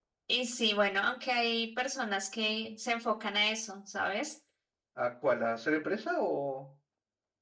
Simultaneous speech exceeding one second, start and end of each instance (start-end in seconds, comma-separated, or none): none